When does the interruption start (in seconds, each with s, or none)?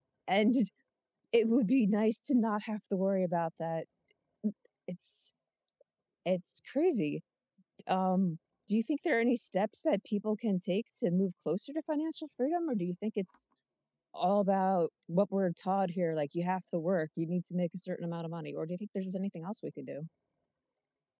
none